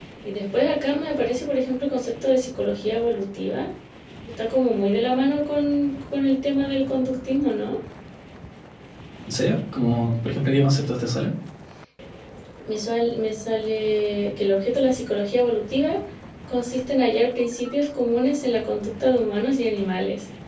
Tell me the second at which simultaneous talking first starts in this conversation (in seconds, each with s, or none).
none